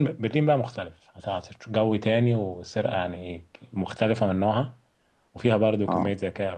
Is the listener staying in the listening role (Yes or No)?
Yes